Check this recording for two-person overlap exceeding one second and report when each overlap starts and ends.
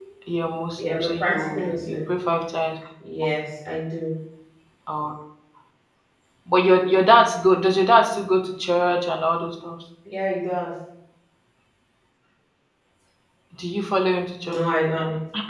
0.8-2.0

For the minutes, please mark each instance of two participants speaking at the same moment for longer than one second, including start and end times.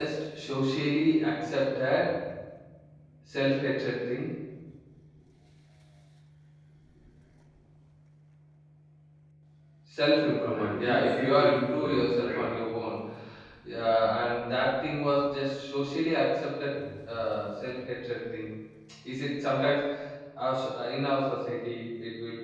10.2-12.5

